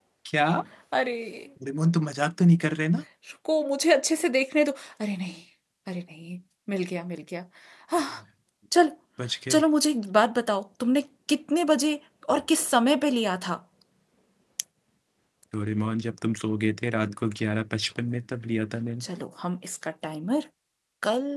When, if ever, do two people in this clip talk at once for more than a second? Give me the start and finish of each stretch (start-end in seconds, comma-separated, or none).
none